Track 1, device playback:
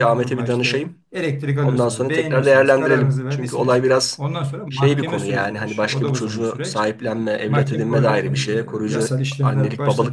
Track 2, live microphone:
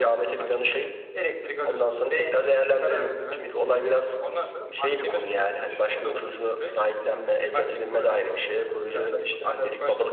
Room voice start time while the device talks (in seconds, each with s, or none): none